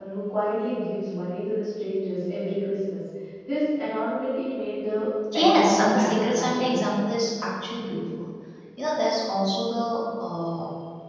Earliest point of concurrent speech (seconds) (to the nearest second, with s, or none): 5 s